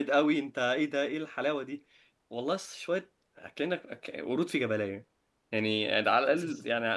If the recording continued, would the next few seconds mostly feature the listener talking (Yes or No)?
No